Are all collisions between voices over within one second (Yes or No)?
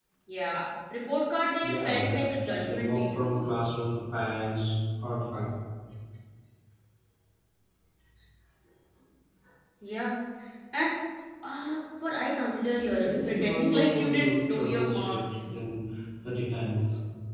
No